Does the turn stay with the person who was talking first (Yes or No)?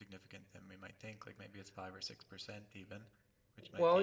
No